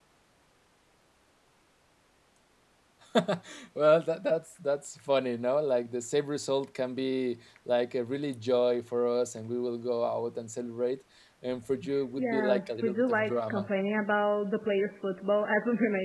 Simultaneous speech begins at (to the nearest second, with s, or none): 12 s